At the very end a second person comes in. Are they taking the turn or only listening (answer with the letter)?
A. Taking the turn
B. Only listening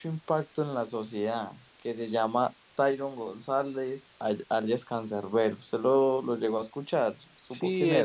A